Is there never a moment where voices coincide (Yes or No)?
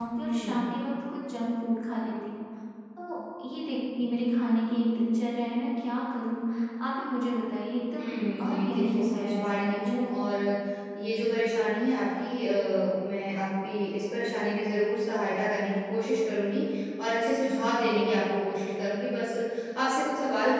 No